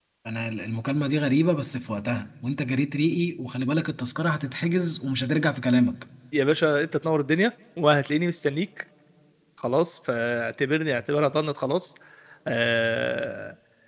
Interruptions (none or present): none